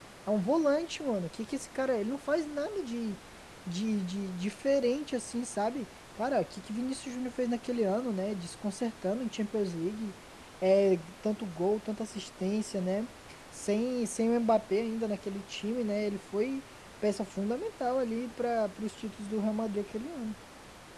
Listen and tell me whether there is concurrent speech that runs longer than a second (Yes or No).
No